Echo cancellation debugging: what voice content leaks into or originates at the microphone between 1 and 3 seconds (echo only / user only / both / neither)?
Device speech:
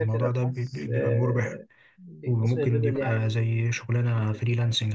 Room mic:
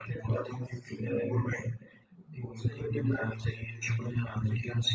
echo only